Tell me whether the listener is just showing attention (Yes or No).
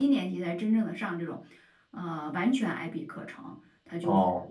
Yes